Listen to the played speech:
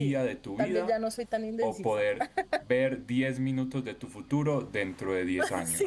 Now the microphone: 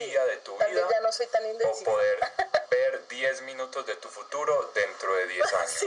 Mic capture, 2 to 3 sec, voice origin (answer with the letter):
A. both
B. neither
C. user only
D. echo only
D